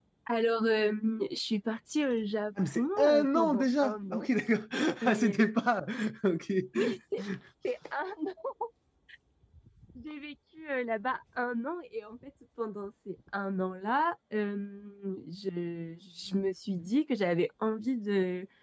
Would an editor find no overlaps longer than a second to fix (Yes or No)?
No